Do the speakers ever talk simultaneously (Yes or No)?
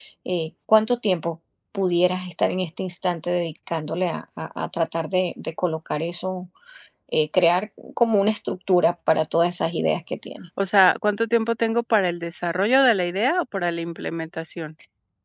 No